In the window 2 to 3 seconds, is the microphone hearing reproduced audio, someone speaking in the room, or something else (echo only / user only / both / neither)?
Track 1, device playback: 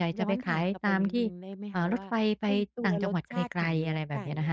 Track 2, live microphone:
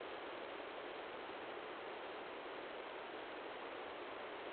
neither